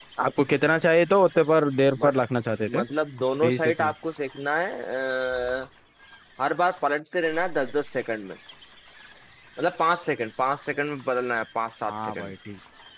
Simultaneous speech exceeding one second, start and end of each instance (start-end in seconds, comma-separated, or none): none